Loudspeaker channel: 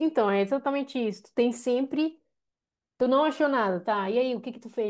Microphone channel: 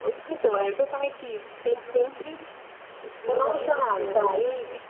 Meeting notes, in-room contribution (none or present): present